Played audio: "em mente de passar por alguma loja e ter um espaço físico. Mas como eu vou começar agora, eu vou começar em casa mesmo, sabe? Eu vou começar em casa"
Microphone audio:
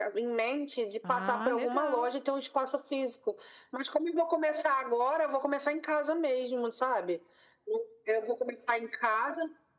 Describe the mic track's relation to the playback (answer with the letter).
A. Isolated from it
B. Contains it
B